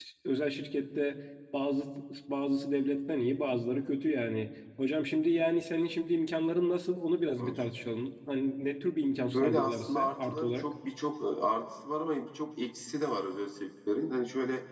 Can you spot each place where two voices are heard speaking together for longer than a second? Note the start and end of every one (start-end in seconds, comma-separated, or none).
9.3-10.7